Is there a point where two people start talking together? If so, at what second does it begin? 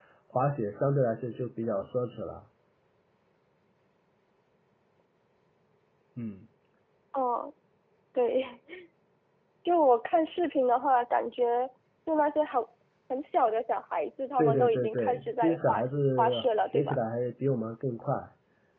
14 s

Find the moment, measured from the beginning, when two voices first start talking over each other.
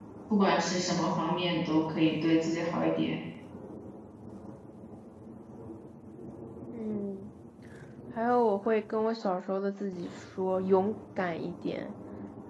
none

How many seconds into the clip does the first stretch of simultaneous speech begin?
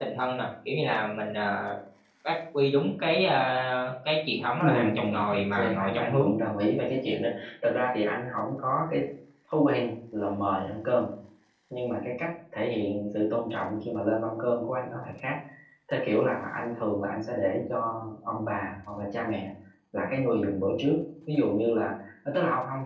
5 s

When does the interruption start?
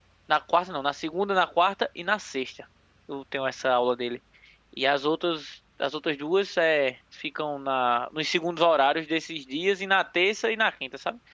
none

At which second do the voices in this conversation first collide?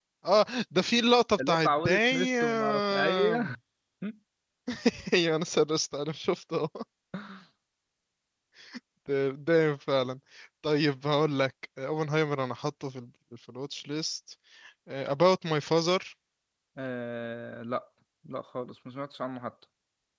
1 s

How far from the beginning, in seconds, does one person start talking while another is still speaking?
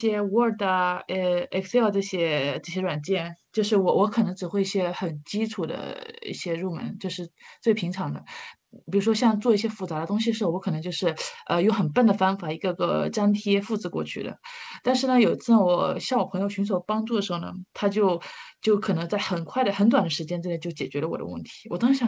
none

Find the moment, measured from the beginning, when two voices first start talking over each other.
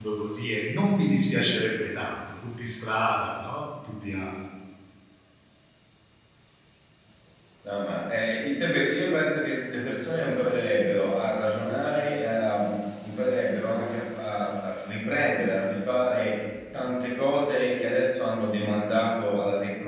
none

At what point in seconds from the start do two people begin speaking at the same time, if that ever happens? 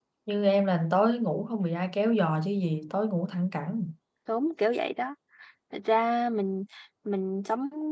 none

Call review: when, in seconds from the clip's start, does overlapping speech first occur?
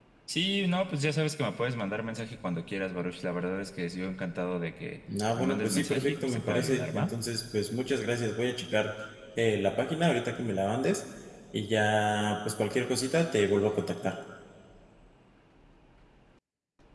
5 s

